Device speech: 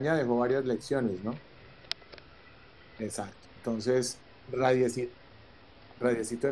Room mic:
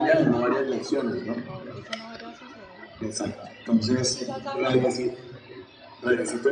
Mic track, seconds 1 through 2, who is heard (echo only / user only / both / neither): both